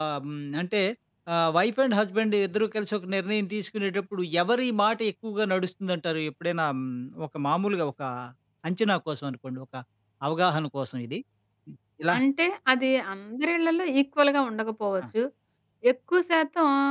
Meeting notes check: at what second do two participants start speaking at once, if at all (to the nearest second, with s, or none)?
none